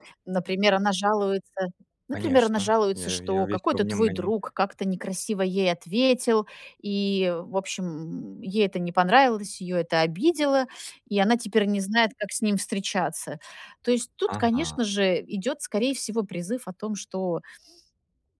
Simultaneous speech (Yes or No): Yes